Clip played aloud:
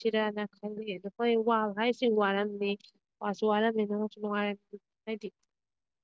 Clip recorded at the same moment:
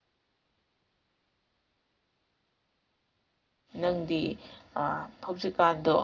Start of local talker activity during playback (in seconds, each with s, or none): 3.8 s